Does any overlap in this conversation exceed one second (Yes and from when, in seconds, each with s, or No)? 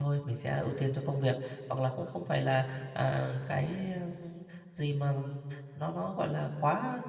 No